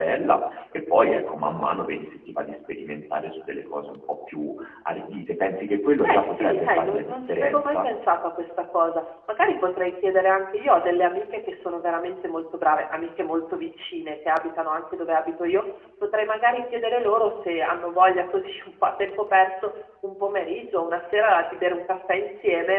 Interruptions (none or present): present